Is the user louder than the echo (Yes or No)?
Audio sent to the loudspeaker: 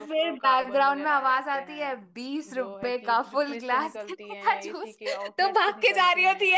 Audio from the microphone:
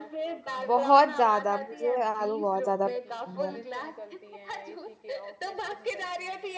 Yes